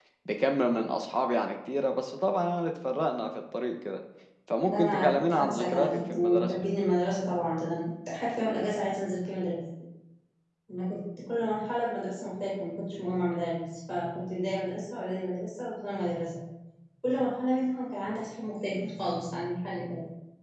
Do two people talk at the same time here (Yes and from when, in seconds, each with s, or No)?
Yes, from 4.7 s